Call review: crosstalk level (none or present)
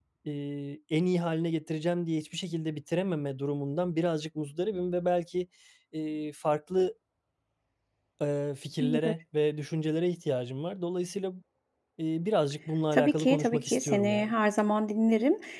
present